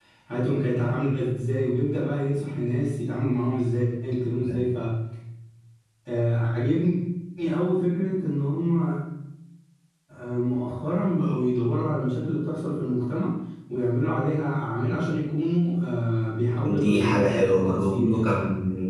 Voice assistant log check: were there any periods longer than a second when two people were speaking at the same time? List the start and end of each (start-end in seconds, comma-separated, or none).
16.6-18.3